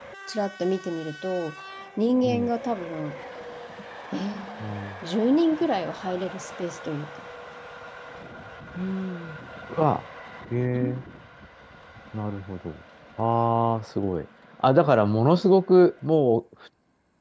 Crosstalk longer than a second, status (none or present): none